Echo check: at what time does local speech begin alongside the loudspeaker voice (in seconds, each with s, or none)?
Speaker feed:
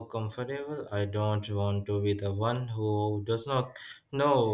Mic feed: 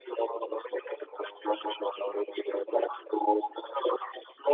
none